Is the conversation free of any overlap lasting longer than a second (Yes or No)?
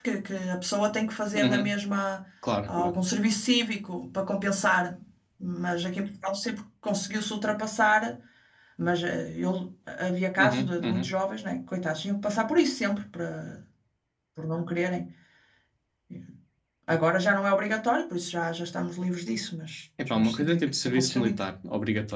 No